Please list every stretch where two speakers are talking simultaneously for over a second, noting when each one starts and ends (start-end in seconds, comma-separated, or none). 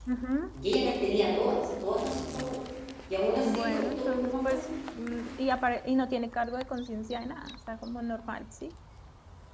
3.5-4.7